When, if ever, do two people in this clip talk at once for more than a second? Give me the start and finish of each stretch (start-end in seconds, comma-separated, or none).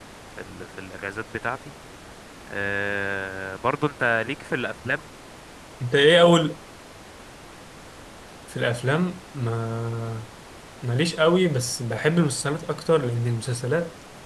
none